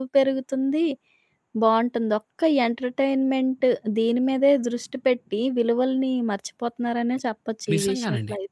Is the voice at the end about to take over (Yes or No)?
Yes